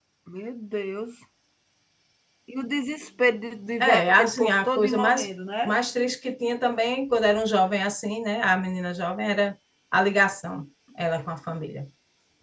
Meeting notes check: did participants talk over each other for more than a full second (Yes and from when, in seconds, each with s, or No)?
Yes, from 3.8 s